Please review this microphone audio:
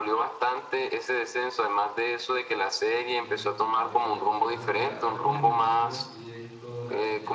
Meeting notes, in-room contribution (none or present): present